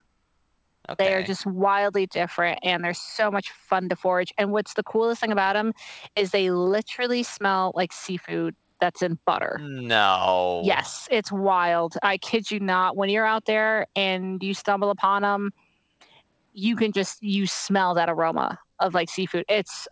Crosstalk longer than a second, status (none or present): none